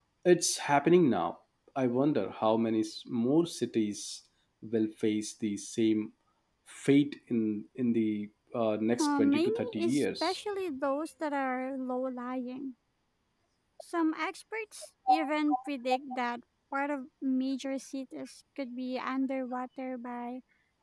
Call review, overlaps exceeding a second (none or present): present